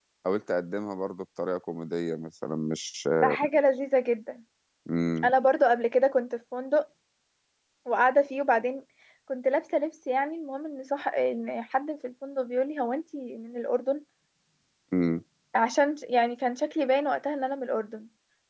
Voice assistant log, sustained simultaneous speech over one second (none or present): none